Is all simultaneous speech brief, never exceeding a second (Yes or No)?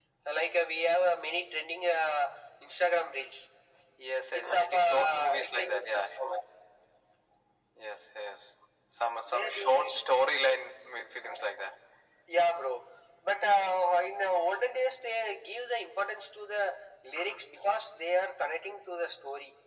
No